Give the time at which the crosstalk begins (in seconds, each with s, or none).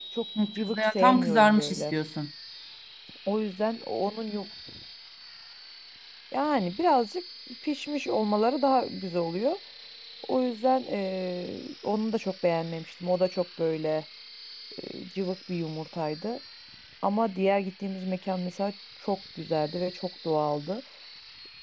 0.6 s